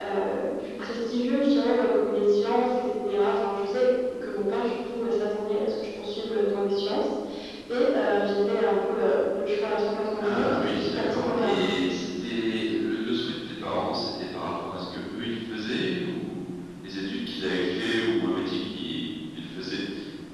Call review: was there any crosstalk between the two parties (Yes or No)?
Yes